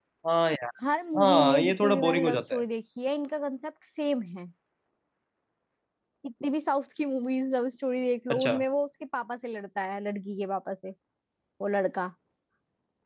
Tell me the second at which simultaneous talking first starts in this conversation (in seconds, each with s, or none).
1.2 s